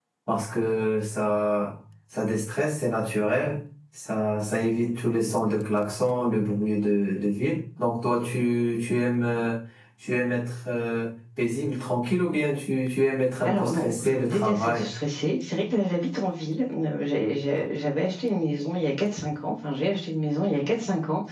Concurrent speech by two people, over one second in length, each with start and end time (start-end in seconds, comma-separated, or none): 13.4-14.9